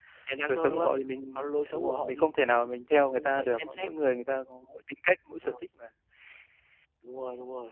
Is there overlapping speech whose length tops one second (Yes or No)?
Yes